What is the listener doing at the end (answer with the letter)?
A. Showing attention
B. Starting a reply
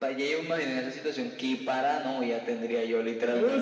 B